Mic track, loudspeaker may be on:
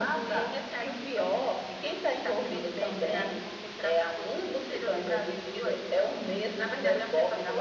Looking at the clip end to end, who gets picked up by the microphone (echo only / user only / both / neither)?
echo only